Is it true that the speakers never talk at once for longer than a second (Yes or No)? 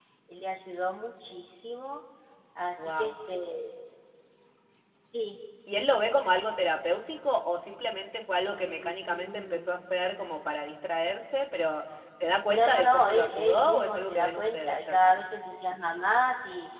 No